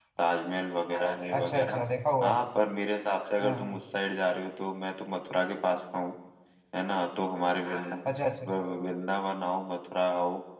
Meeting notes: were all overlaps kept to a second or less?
Yes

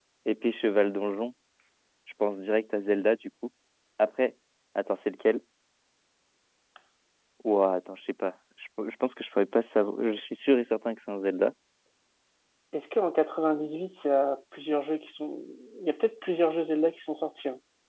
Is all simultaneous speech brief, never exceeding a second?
Yes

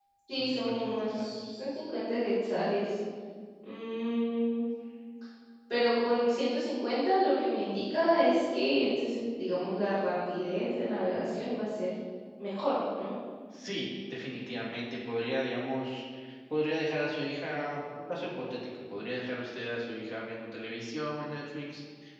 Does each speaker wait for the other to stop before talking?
No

